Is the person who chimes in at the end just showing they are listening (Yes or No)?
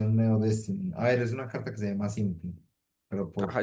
No